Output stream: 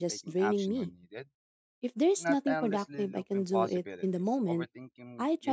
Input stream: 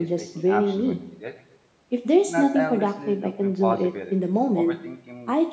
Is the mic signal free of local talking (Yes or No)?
Yes